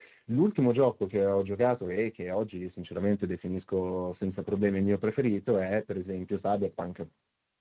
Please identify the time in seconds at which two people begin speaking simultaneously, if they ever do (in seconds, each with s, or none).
none